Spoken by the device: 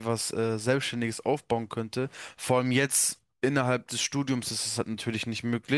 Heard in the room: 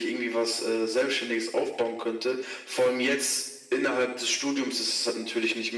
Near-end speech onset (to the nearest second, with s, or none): none